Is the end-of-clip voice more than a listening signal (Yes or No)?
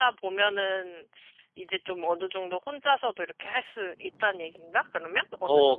Yes